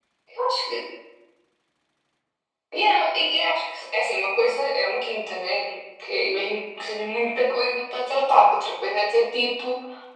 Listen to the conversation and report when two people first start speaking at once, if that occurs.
none

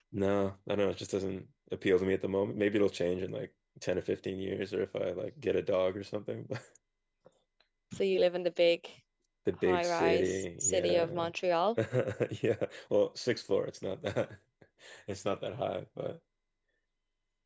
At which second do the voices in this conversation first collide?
9.7 s

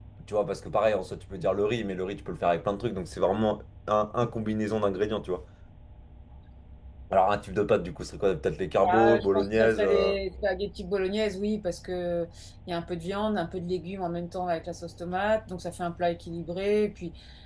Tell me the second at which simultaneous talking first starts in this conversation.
8.8 s

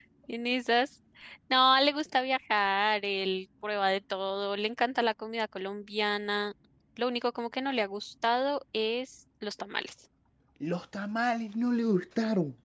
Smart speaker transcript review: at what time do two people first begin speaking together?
none

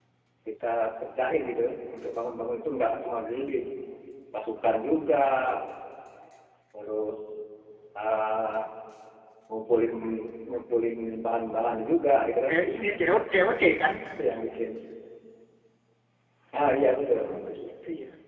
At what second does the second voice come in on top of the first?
none

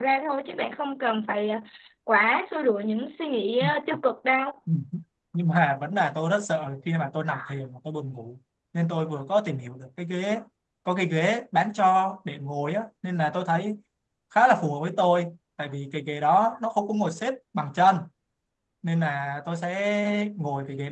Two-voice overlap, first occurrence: none

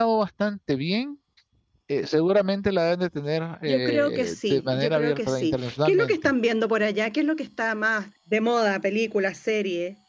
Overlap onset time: 3.7 s

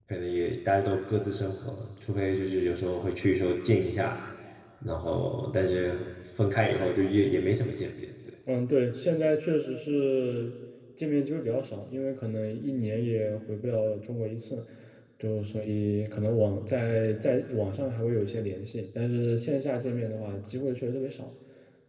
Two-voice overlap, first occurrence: none

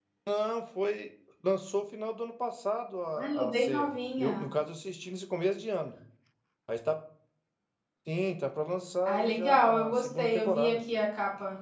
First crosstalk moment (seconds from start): 3.2 s

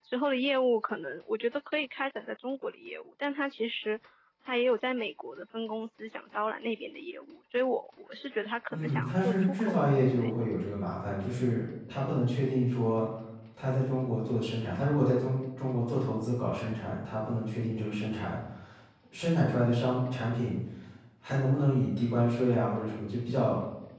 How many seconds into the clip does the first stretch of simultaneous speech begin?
8.7 s

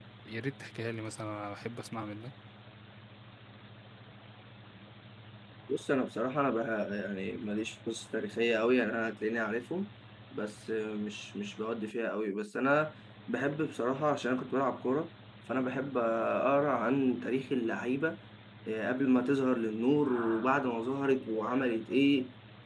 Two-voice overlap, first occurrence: none

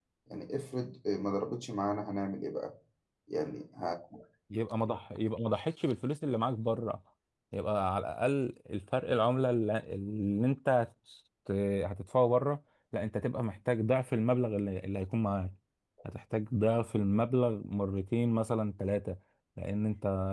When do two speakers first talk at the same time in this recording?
none

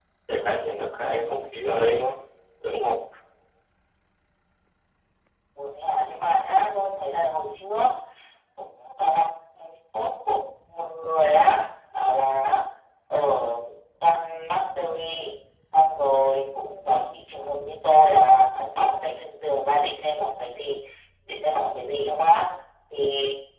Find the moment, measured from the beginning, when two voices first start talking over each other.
none

